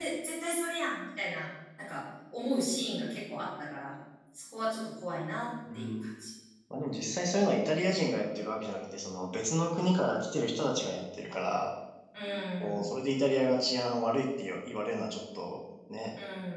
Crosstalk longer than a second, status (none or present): none